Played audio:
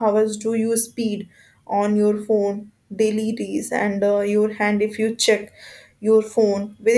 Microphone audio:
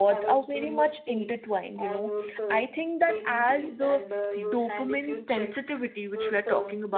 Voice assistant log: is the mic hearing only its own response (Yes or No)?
No